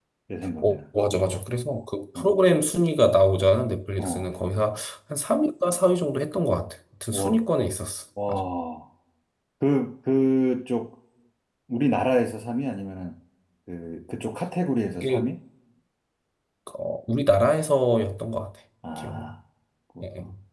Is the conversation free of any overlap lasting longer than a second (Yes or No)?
Yes